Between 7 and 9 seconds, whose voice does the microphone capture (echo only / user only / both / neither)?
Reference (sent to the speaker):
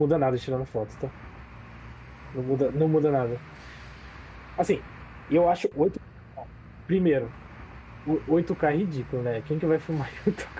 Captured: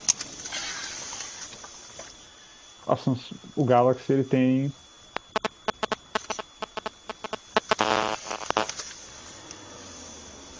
neither